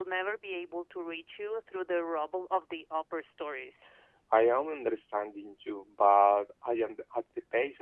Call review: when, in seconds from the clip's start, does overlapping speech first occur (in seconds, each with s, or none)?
none